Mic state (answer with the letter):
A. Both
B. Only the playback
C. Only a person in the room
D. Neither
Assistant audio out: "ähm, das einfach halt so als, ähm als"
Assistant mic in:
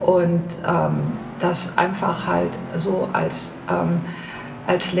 B